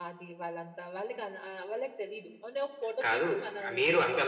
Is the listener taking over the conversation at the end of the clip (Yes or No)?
Yes